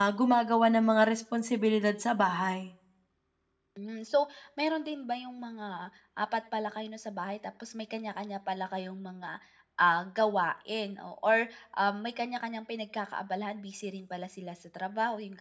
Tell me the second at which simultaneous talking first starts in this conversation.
none

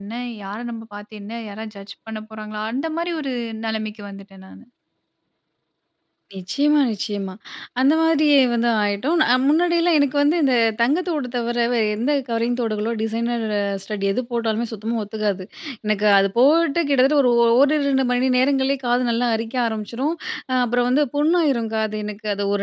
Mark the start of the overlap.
none

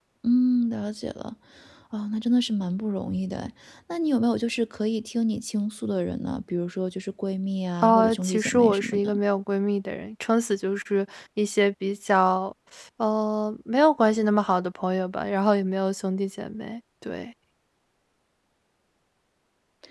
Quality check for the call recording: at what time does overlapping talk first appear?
7.8 s

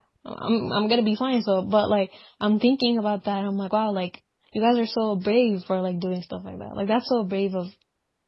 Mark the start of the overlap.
none

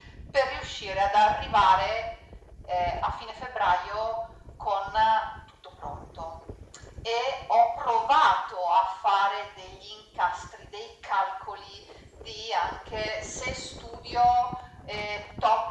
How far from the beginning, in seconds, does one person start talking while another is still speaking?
none

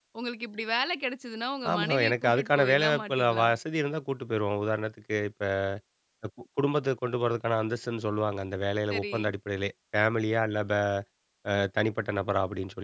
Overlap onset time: 1.7 s

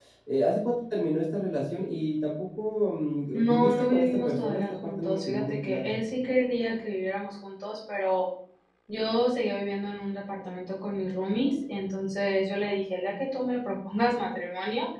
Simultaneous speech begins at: 3.3 s

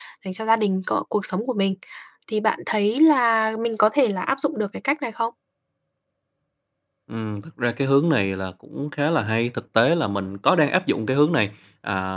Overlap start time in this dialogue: none

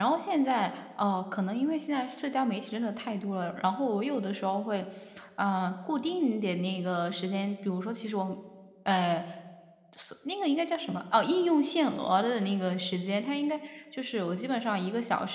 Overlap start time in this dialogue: none

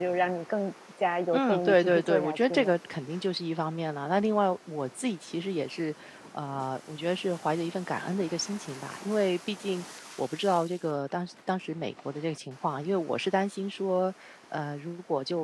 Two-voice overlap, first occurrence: 1.3 s

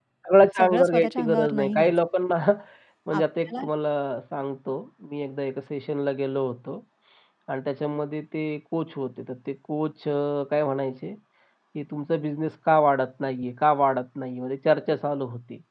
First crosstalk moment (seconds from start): 0.6 s

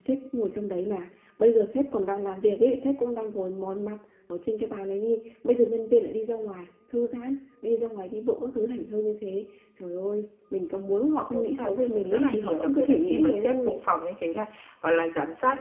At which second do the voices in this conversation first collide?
11.3 s

